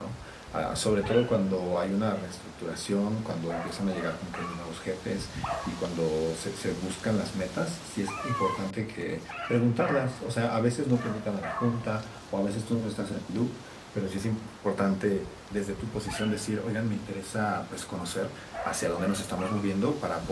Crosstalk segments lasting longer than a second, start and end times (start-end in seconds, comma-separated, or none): none